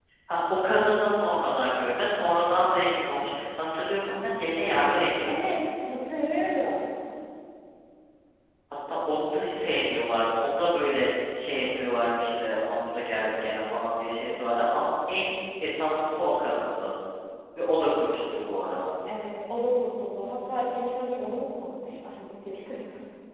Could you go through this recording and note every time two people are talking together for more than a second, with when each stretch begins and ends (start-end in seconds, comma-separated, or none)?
none